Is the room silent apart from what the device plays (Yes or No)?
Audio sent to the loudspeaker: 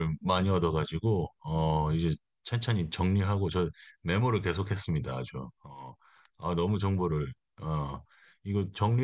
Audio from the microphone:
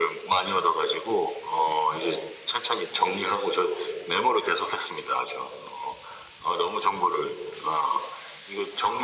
Yes